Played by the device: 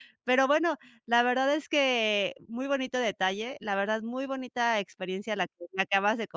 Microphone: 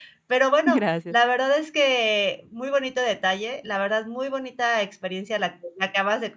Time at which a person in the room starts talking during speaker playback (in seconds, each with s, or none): 0.6 s